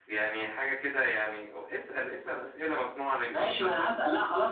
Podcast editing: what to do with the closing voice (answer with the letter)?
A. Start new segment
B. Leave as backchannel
A